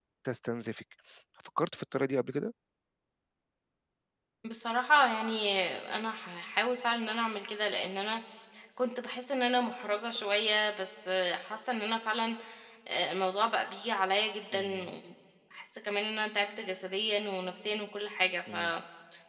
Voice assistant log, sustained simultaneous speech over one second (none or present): none